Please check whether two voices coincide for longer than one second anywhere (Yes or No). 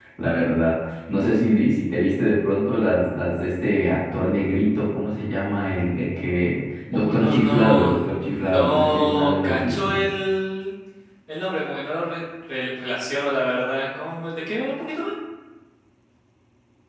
Yes